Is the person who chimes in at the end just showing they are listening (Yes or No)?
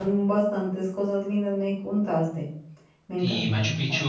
No